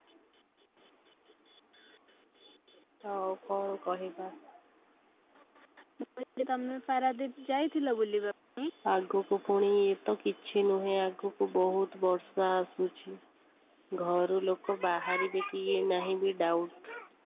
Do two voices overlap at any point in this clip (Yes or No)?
No